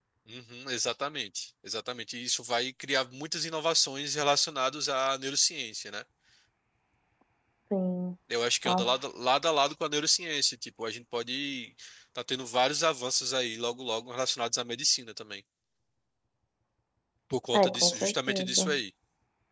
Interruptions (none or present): present